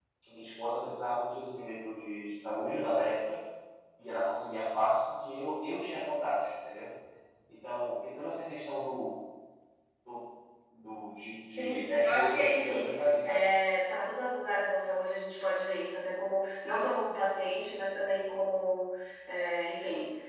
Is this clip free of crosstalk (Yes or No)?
No